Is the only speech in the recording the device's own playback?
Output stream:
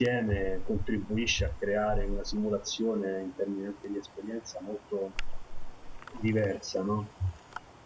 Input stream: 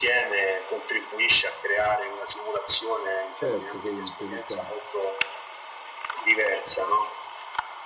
No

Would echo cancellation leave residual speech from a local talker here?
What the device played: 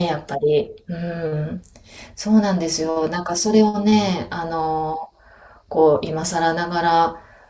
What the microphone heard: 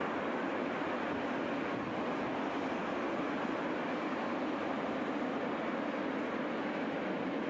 No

